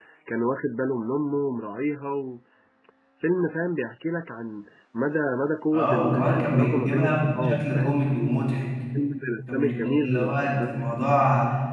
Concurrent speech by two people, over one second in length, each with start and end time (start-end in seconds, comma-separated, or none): 5.7-8.0, 9.5-10.8